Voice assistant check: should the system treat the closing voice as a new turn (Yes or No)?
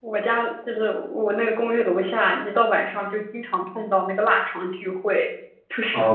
Yes